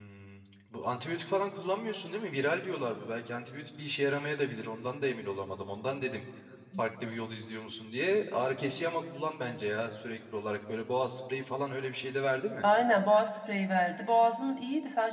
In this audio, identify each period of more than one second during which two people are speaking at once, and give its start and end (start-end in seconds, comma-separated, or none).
none